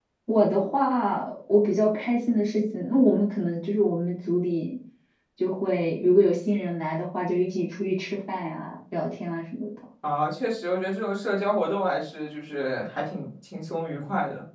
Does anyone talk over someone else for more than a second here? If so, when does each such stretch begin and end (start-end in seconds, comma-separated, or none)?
none